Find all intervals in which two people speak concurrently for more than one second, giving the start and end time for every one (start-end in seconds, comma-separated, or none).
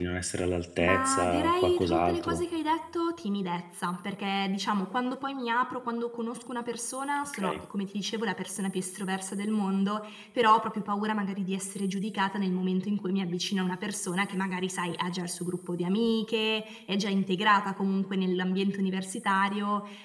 0.8-2.4